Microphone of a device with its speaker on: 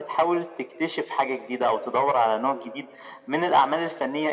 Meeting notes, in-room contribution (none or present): none